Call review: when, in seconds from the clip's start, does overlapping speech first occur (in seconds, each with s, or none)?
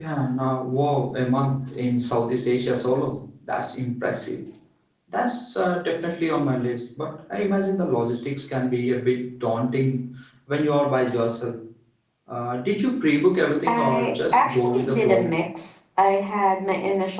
13.7 s